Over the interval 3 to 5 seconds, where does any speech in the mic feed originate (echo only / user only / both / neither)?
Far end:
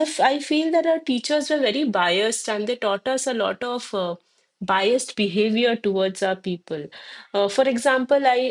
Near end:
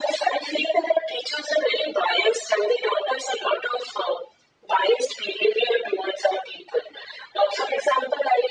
echo only